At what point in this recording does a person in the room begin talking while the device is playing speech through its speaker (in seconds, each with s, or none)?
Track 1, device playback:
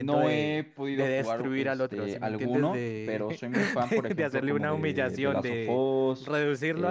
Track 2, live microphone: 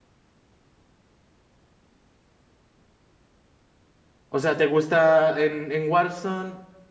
4.3 s